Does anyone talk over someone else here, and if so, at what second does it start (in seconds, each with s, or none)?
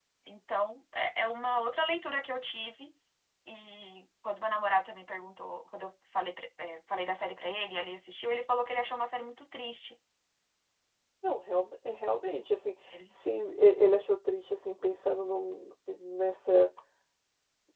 none